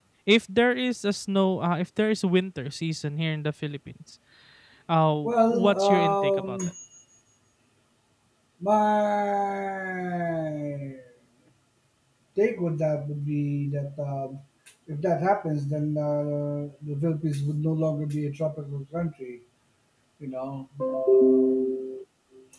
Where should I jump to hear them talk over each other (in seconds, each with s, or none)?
5.2 s